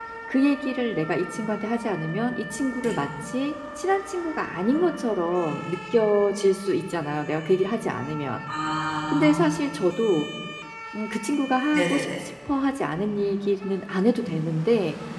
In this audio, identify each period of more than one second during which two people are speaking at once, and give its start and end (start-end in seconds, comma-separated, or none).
none